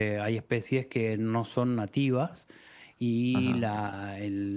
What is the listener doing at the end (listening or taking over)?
listening